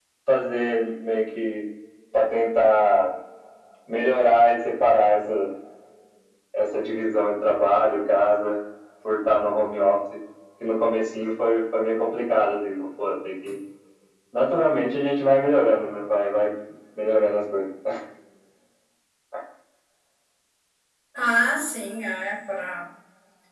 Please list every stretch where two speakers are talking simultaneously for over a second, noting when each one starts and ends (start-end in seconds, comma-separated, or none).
none